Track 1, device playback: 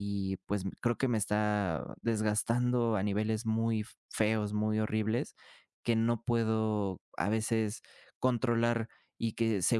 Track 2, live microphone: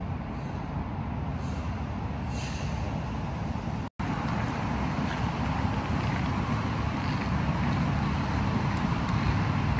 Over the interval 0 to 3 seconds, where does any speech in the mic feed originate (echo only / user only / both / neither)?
neither